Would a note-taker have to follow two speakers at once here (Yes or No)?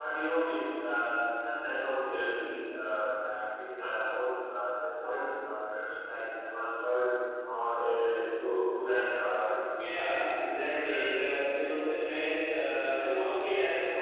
Yes